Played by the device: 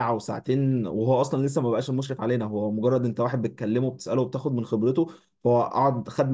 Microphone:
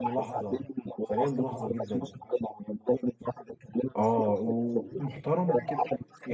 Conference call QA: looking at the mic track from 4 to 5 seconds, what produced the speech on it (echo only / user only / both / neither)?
both